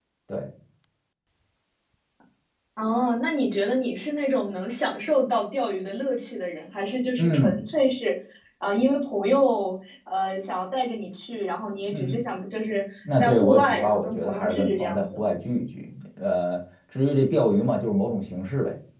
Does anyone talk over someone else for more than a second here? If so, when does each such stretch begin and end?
13.2-15.2

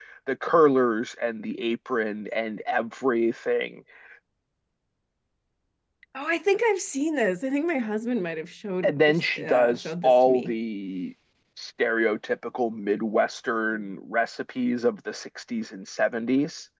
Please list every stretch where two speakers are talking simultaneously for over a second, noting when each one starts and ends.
8.8-10.5

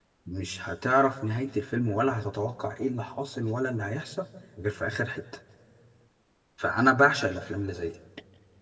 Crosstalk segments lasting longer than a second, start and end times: none

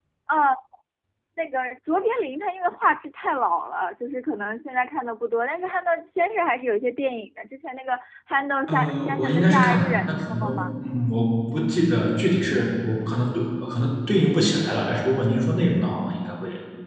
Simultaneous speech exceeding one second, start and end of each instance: 8.7-10.4

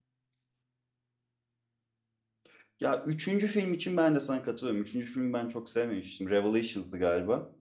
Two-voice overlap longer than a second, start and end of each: none

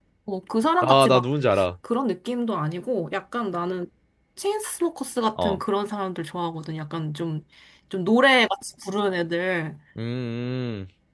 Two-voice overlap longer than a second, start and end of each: none

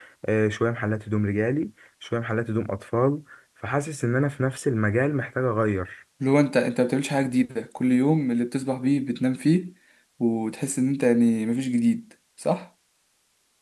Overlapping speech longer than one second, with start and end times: none

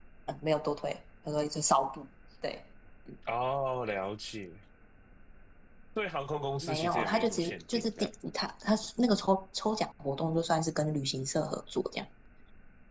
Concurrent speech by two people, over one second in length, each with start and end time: 6.6-8.1

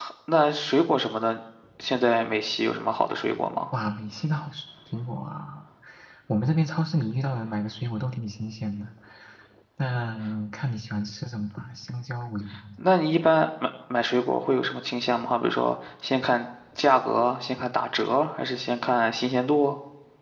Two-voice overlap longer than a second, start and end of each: none

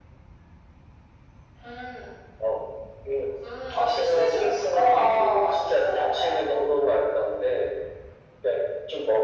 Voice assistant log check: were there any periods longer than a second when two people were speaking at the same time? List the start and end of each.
3.8-6.4

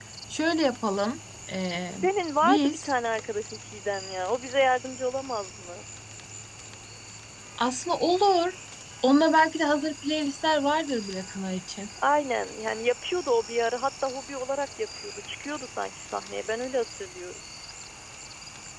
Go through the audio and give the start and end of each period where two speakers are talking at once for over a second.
none

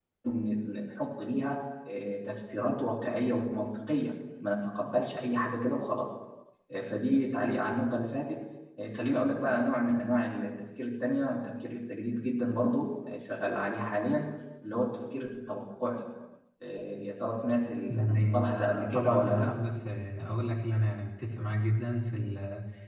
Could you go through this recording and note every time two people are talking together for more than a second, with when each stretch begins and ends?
17.9-19.6

